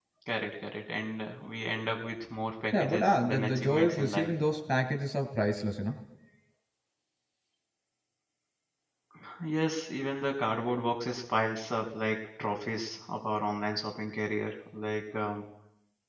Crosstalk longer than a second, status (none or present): present